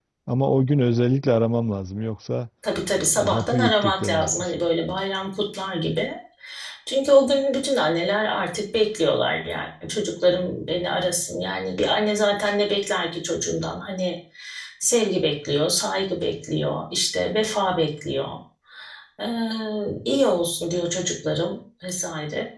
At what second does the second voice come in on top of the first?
3.1 s

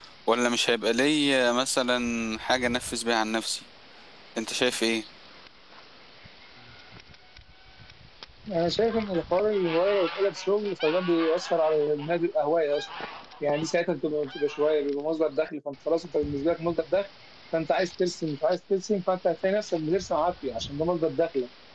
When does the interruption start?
none

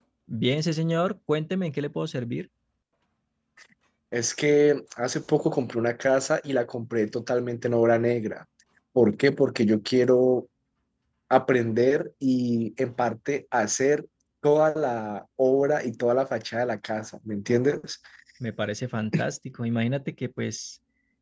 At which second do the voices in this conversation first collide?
none

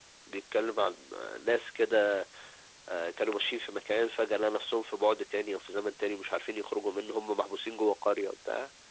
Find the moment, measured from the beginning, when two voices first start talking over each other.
none

